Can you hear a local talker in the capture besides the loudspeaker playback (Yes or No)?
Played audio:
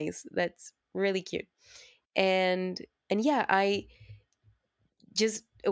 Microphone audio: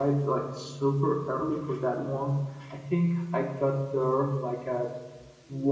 Yes